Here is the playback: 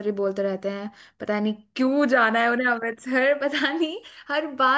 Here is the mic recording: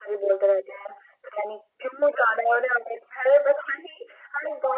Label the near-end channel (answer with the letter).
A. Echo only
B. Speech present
A